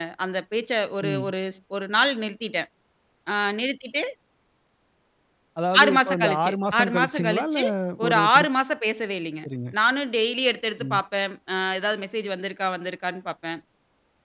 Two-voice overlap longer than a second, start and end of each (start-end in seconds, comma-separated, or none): 5.8-7.6